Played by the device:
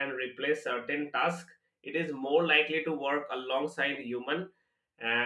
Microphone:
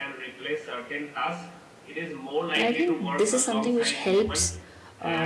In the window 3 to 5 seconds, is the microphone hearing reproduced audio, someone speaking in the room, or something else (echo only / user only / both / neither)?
both